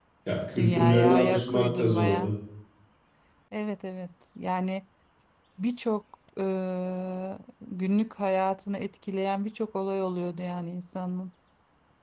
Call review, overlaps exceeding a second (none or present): present